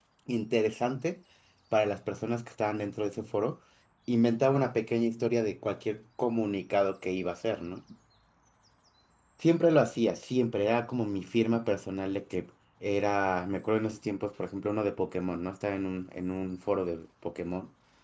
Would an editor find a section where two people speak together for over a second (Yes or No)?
No